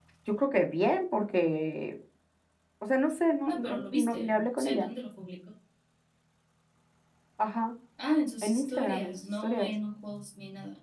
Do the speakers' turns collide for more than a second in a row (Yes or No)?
Yes